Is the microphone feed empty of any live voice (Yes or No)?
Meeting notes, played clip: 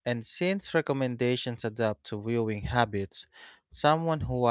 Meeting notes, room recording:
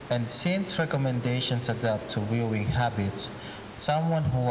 Yes